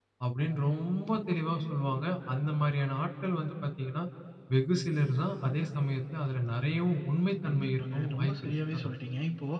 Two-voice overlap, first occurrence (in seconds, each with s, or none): 7.4 s